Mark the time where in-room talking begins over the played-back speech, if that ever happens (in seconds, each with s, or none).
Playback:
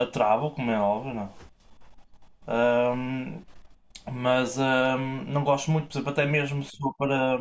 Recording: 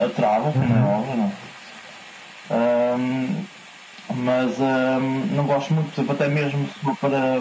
0.5 s